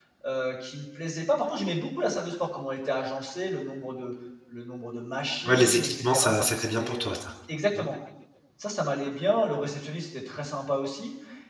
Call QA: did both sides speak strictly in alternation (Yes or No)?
No